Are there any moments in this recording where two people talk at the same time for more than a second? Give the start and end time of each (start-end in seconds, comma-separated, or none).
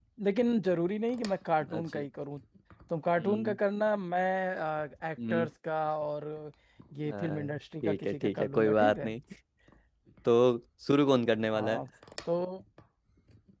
7.1-9.1